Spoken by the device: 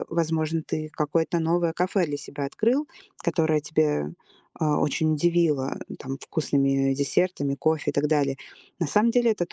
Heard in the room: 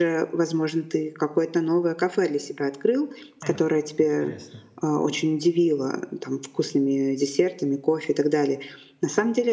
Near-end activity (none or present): present